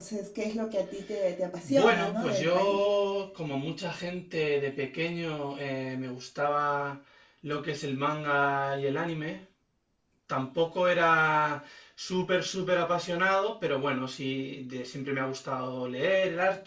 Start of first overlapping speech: 2 s

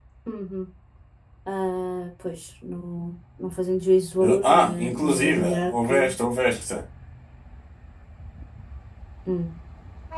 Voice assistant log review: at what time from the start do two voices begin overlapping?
4 s

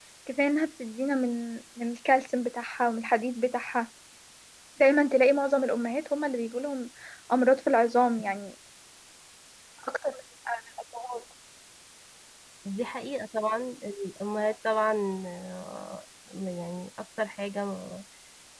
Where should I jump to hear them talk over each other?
none

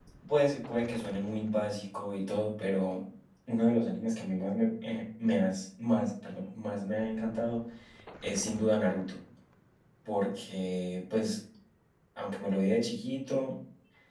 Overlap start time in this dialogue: none

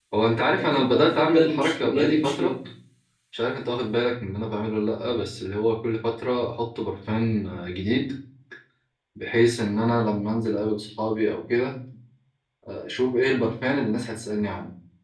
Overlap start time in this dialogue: 1 s

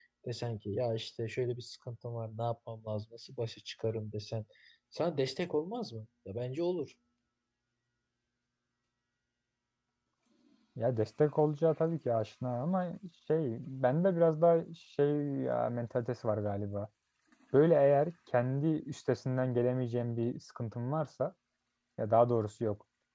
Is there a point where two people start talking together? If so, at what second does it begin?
none

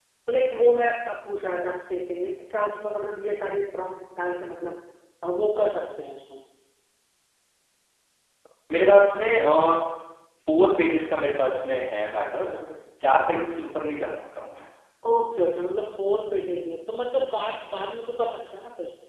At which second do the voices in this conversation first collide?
none

